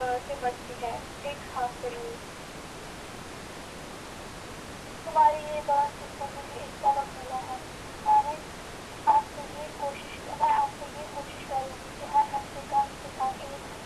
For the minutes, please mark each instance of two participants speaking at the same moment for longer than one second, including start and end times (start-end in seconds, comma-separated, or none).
none